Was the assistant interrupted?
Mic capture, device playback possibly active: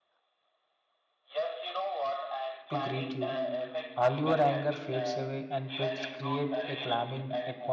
Yes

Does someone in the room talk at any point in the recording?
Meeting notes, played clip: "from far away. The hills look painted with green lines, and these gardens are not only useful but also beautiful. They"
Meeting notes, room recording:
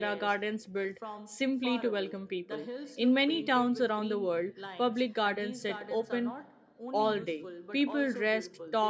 Yes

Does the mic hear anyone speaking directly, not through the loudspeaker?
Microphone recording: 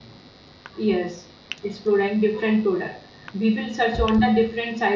Yes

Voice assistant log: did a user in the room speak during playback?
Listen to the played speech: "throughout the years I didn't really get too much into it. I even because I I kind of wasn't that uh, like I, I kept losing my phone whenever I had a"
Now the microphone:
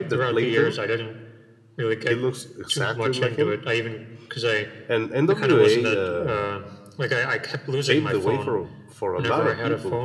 Yes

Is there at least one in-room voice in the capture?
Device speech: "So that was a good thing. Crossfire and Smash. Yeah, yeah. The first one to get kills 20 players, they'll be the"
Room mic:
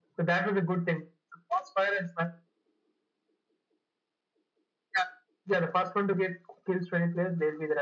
No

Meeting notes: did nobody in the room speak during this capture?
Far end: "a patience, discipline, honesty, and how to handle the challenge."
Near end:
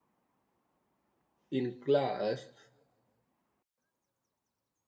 No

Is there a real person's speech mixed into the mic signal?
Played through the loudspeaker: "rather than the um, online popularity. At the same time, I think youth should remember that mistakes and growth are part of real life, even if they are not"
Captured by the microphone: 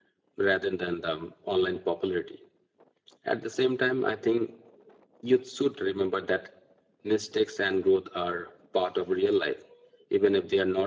No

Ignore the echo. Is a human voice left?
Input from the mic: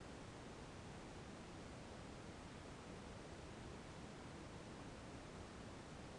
No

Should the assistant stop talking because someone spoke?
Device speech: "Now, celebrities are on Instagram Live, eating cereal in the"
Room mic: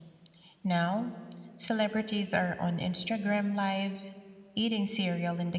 No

